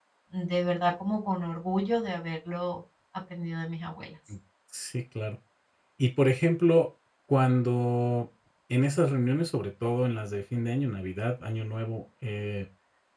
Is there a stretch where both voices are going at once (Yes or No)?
No